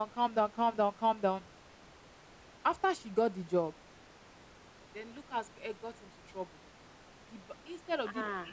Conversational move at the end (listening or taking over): listening